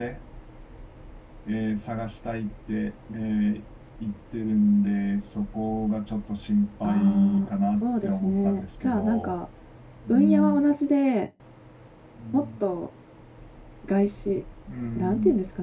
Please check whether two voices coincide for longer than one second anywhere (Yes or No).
Yes